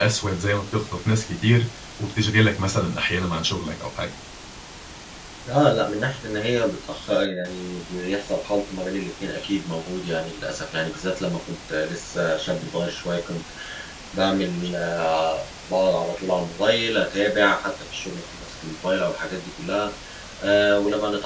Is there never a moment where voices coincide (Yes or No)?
Yes